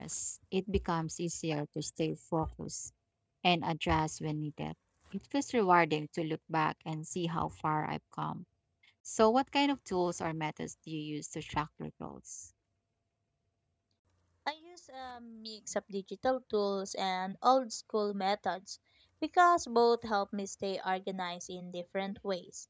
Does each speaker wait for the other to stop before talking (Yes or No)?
Yes